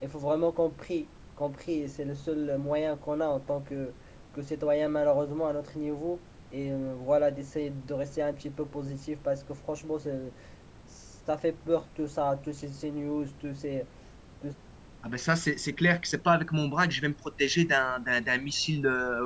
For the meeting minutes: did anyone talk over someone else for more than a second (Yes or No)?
No